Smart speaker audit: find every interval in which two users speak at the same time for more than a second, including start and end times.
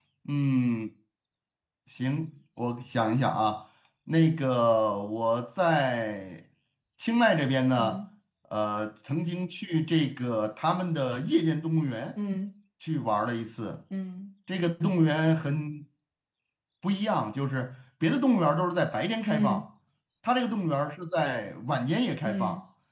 none

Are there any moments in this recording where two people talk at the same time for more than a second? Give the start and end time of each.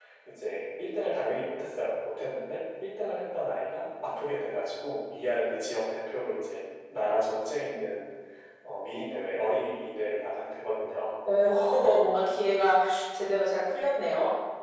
none

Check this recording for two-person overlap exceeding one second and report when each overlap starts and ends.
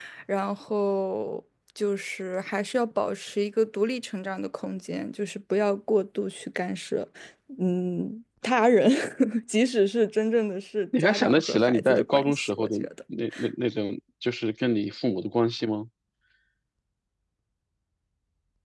11.0-12.9

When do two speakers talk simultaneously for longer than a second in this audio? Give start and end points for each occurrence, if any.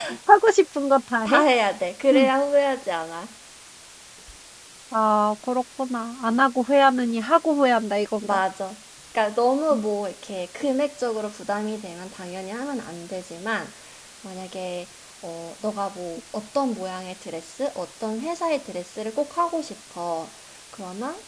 none

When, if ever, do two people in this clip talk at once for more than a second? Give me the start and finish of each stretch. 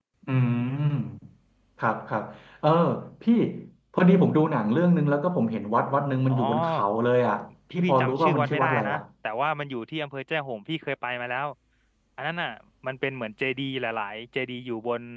7.7-9.0

